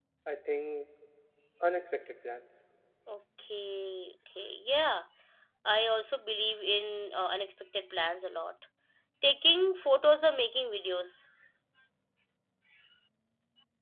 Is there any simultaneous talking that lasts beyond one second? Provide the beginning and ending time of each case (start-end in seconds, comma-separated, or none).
none